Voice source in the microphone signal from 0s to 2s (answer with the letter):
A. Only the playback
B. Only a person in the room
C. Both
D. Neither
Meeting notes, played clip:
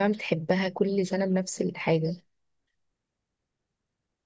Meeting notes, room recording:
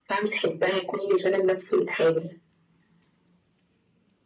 A